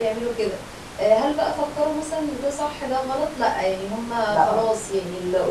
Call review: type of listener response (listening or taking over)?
listening